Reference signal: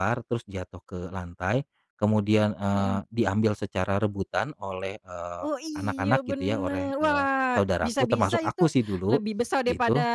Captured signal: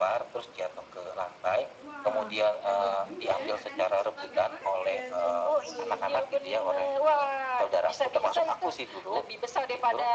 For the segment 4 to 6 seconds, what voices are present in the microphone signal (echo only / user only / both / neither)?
both